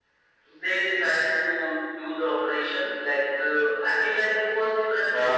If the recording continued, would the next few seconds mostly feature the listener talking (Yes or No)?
Yes